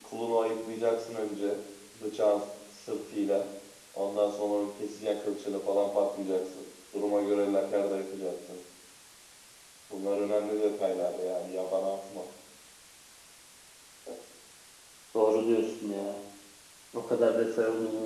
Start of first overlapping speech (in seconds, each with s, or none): none